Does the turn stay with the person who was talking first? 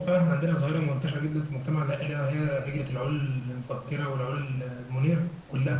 No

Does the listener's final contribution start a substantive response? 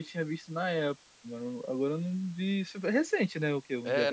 Yes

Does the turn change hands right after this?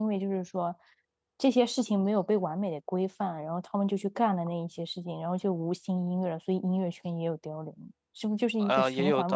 Yes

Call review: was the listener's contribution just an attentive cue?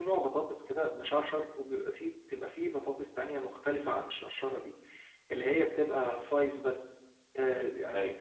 No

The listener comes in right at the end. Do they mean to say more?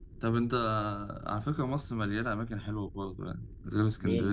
Yes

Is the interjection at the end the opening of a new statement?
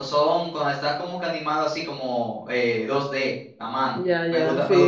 Yes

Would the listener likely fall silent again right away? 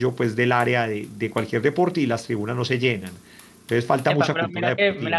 No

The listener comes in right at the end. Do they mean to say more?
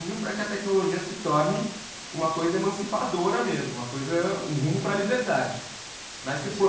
No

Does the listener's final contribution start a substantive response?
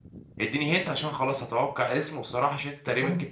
Yes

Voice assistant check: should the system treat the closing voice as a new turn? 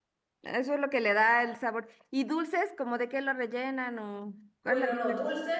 Yes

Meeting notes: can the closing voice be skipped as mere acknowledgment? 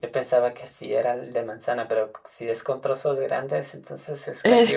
No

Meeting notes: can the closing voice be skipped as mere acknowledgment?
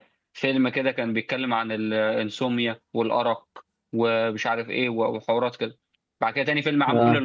Yes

